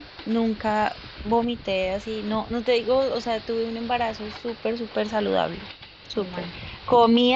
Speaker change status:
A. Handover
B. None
B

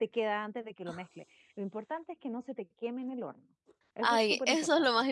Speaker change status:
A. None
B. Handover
B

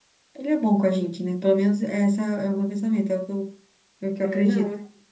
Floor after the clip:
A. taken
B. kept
A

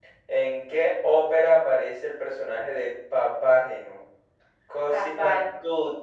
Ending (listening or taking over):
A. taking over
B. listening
B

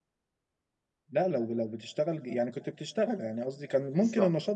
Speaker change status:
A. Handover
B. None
B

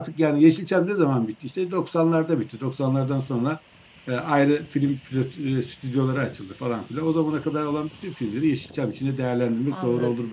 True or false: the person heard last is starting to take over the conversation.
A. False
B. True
B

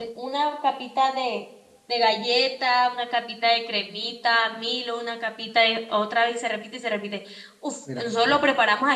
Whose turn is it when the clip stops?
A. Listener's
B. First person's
B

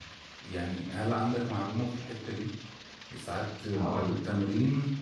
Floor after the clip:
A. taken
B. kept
B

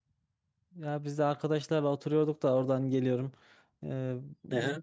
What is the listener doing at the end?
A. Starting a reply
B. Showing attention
B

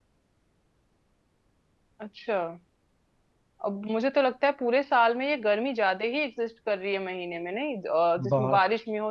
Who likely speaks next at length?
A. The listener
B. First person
B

